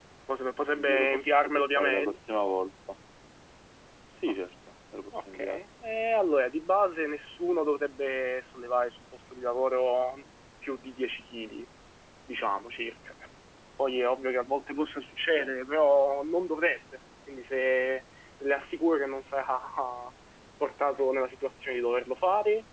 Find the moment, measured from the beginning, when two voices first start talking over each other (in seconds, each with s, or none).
0.8 s